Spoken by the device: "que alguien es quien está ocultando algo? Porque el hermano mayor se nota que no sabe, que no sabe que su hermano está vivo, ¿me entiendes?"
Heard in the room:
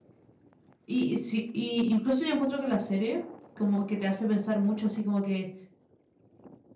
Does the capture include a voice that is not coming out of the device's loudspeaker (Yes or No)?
Yes